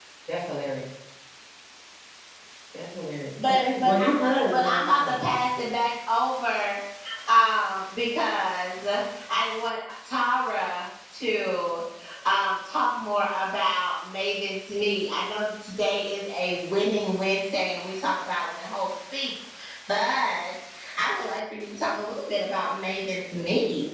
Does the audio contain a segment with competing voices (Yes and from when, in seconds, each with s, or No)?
Yes, from 3.4 s